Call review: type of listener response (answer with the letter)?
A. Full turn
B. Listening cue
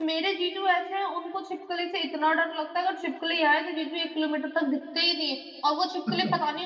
B